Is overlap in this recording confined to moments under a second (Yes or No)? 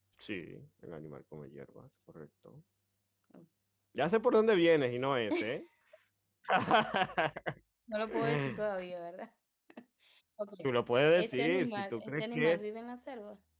No